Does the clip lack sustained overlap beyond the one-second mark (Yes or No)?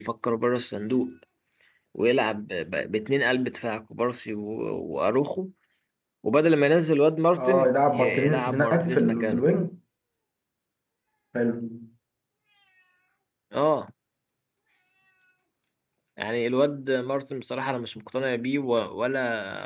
No